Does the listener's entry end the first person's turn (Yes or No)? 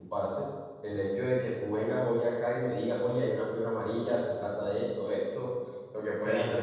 No